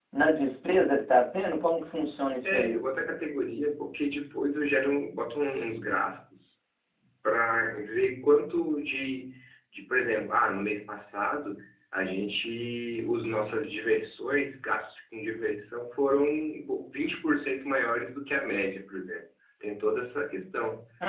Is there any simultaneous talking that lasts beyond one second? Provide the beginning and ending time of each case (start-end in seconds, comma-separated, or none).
none